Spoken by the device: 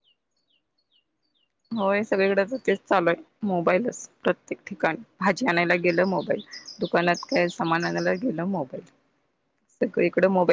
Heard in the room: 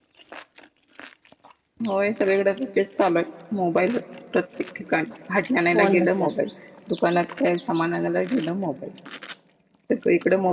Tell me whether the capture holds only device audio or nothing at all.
No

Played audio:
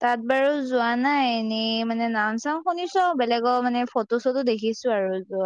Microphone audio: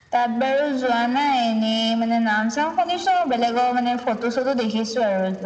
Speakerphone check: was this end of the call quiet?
Yes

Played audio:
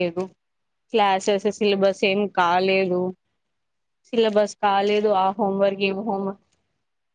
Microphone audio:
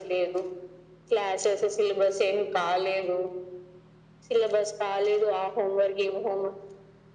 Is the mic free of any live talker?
Yes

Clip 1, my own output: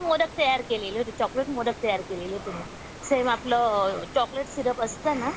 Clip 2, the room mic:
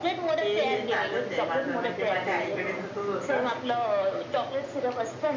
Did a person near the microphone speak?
Yes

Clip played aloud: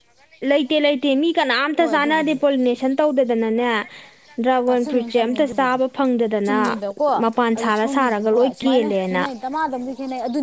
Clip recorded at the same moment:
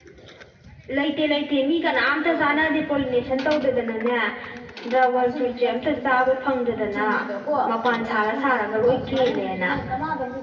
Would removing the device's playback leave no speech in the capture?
Yes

